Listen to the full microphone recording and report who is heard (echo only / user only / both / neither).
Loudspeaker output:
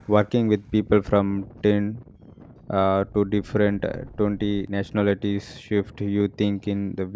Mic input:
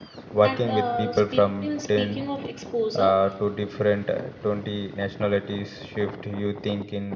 both